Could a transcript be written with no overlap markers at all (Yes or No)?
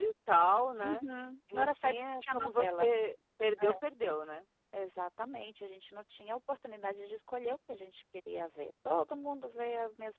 No